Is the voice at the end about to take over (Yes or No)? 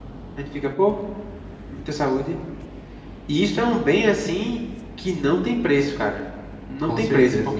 No